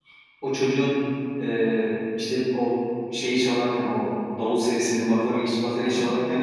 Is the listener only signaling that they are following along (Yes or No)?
Yes